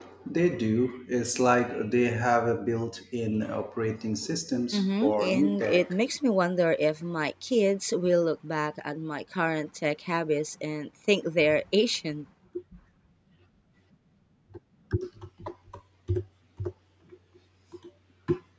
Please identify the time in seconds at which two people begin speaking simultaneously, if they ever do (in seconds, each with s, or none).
4.7 s